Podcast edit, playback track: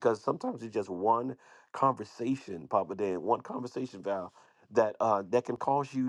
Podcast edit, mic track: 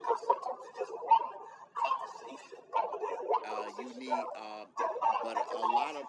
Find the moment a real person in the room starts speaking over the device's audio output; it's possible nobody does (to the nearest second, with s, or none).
3 s